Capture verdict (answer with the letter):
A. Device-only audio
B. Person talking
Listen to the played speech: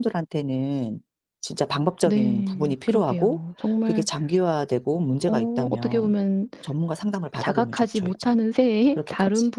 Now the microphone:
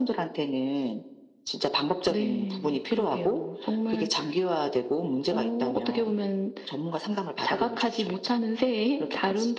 A